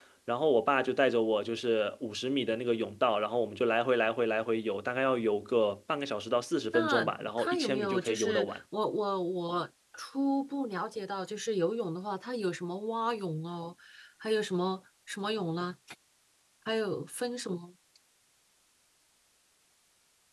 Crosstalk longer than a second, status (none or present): present